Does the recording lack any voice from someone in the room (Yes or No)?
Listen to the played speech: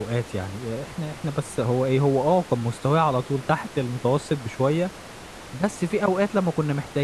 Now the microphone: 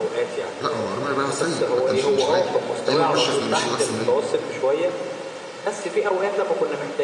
No